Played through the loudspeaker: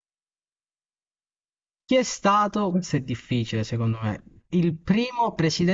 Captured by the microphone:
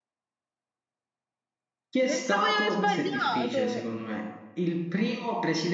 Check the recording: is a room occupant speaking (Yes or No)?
Yes